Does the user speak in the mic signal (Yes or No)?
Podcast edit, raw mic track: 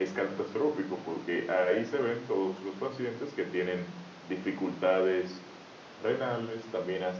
Yes